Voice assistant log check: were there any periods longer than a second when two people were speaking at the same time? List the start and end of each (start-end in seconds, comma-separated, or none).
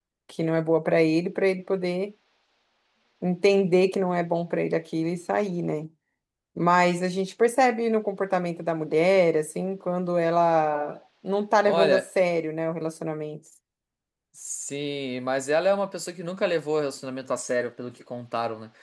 none